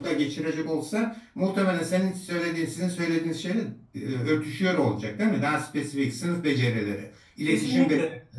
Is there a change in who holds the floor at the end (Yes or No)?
Yes